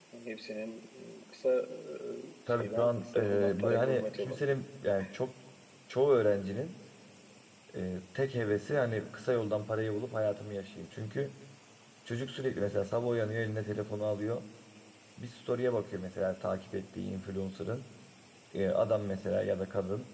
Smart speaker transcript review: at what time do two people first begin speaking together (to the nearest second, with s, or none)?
2 s